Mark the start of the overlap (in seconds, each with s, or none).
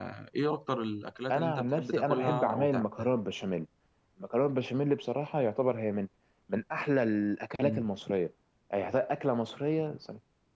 1.3 s